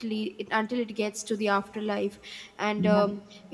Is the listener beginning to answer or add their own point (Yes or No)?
No